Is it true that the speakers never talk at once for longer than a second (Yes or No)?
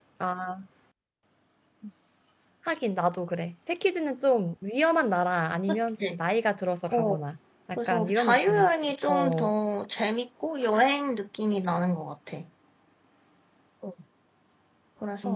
No